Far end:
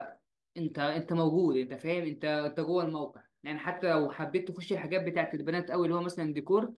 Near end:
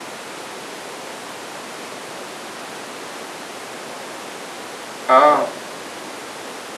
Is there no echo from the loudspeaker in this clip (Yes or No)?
Yes